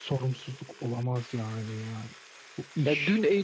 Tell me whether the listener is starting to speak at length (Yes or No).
Yes